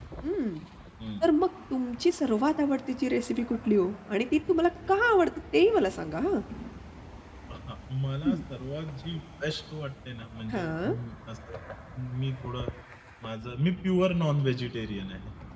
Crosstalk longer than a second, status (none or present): none